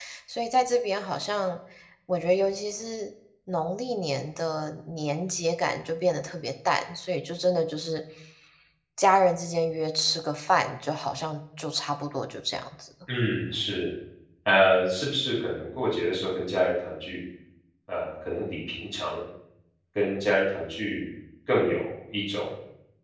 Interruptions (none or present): none